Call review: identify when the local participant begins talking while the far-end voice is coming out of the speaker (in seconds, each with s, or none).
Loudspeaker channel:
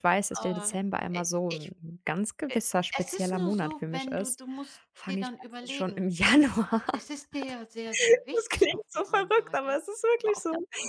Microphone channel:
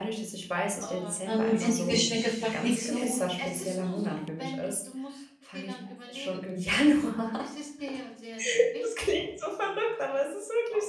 1.2 s